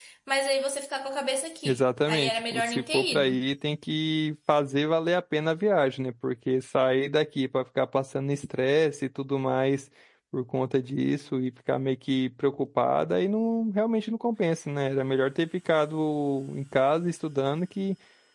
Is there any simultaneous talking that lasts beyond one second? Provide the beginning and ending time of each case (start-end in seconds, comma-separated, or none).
1.6-3.4